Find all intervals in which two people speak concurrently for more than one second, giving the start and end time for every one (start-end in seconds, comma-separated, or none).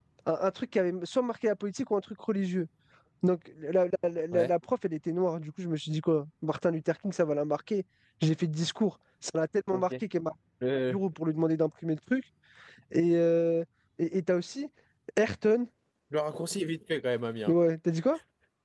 none